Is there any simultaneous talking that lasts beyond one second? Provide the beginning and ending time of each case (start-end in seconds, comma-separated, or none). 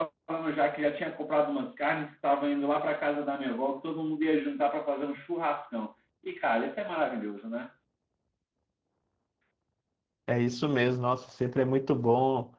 none